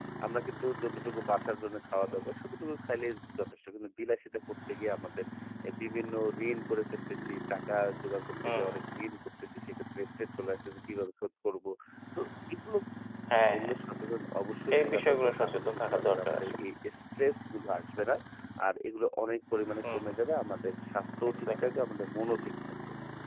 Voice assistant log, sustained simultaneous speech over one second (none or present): present